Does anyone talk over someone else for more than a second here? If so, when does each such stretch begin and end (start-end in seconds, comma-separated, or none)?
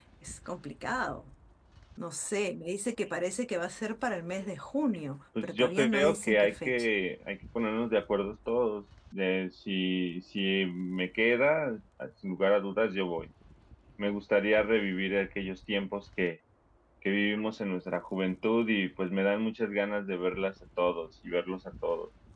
5.4-6.9